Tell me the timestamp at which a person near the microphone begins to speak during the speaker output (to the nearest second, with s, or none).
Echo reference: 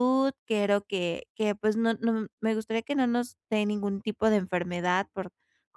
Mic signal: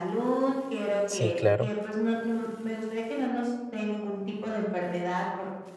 1 s